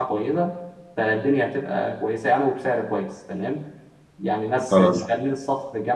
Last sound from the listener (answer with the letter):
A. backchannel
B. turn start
A